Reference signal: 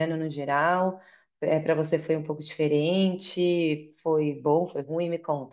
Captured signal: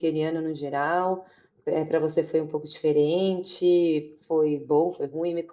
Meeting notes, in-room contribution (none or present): none